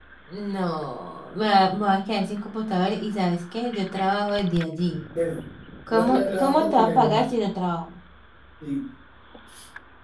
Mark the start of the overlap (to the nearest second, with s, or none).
6 s